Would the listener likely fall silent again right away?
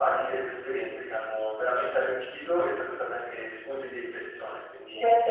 No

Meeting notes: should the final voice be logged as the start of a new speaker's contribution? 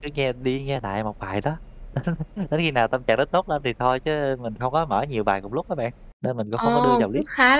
Yes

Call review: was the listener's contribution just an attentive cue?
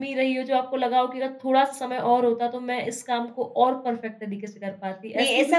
No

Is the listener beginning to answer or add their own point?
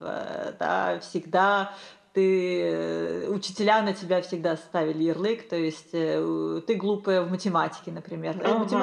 No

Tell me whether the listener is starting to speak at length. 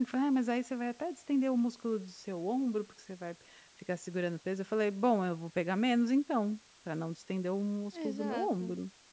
Yes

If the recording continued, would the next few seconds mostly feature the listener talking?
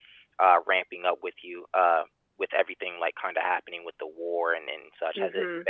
Yes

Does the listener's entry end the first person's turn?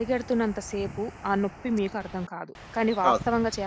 No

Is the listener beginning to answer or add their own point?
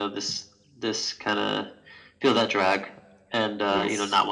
No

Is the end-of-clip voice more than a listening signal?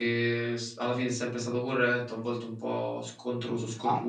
Yes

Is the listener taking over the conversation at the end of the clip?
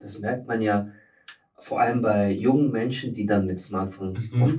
No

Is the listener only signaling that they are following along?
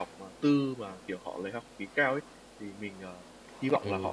Yes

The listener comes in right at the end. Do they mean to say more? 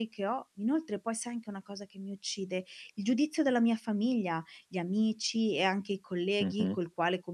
No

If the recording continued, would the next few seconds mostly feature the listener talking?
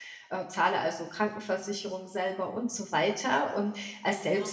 No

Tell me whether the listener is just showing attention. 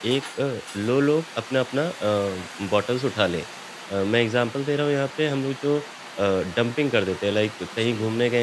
Yes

